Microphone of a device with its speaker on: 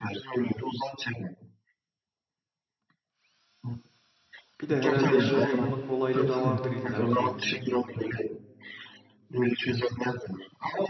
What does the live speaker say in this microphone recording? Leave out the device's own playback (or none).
Bir de herhalde şey yapma kolaylığı da vardır illaki.